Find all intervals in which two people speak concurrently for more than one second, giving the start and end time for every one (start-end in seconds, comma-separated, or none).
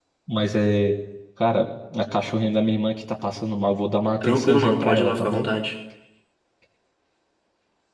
4.2-5.5